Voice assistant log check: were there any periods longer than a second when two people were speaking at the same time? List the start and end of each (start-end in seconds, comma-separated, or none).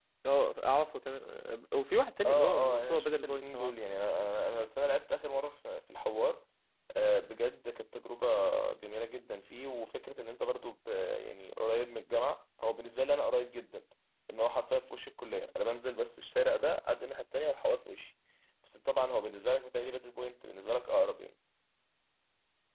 2.2-3.7